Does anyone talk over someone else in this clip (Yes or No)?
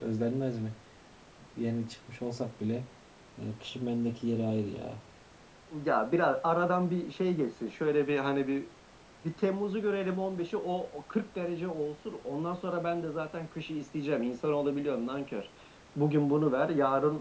No